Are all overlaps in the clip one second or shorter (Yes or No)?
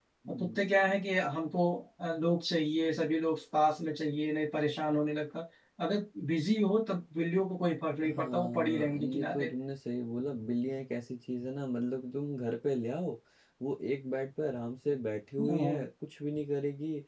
No